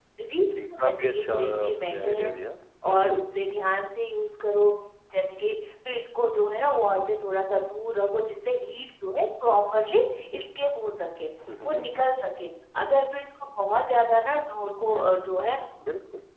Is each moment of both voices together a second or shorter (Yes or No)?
No